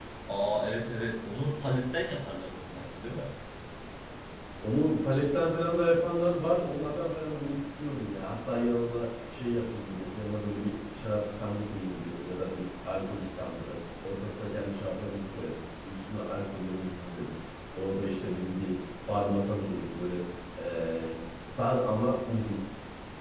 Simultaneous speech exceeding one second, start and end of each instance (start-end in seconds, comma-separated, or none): none